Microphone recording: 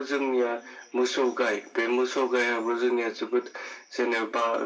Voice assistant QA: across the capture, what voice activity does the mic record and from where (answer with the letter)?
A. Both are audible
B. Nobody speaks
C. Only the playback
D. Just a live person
C